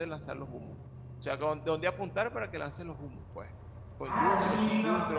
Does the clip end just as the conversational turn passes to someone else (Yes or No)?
Yes